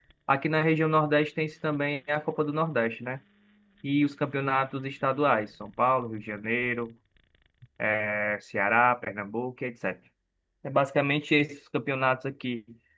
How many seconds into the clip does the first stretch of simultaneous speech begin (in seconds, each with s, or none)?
none